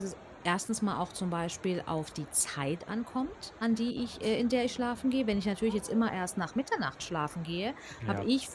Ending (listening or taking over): listening